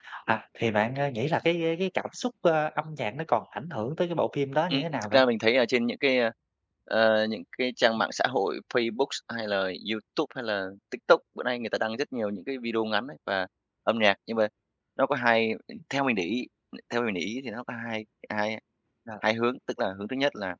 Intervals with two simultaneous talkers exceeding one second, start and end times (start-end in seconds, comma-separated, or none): none